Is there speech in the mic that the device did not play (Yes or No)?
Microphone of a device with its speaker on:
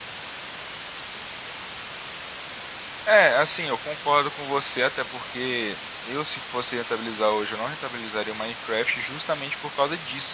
Yes